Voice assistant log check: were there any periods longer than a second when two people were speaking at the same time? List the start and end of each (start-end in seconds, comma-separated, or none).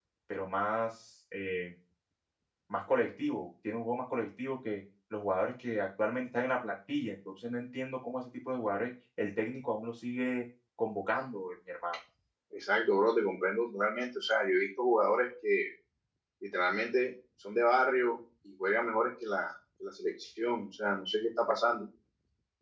none